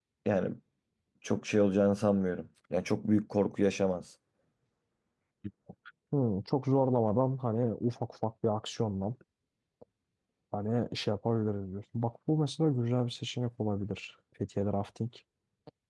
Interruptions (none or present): none